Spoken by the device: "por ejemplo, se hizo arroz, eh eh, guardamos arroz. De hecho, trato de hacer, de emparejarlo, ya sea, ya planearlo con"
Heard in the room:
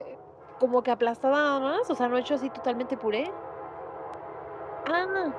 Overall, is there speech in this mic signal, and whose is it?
user only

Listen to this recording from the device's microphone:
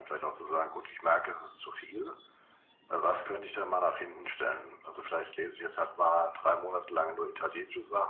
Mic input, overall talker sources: echo only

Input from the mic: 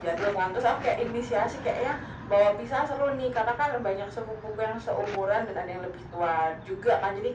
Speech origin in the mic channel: echo only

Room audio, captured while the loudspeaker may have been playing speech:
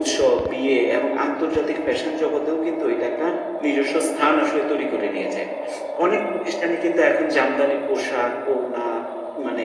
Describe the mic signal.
echo only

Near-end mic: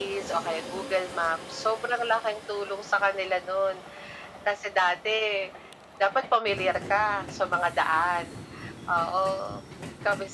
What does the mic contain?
echo only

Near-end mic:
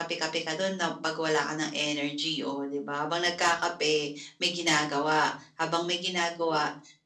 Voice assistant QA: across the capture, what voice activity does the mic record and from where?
echo only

